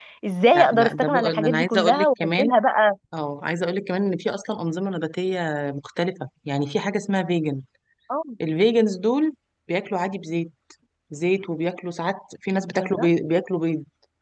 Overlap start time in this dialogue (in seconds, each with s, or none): 0.5 s